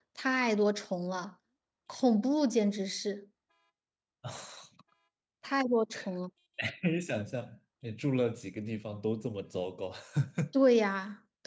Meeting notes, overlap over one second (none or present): none